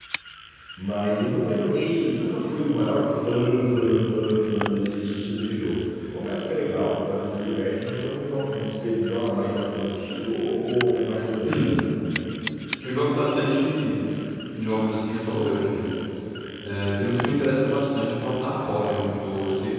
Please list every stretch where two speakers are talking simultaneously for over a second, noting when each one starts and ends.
none

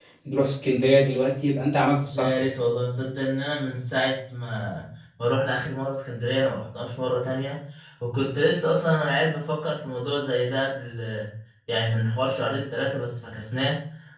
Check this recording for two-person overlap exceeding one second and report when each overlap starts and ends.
none

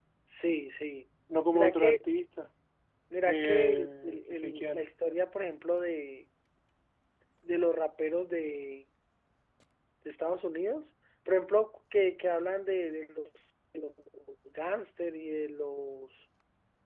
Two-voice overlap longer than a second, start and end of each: 3.3-4.9

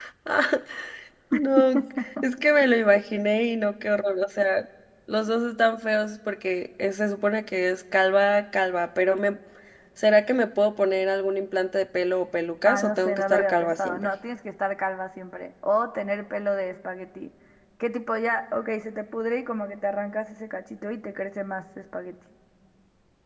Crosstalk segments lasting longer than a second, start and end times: 12.7-14.1

